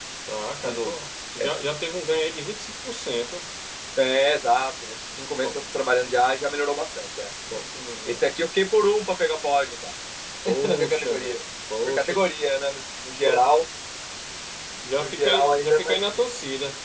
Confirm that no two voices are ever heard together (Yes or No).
No